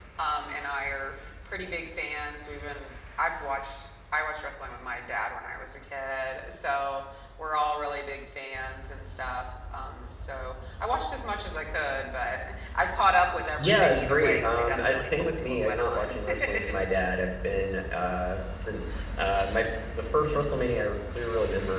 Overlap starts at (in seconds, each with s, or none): 13.6 s